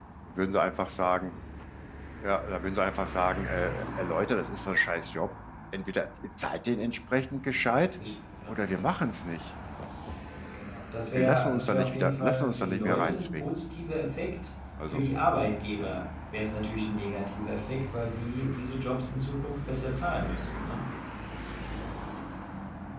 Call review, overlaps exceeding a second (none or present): present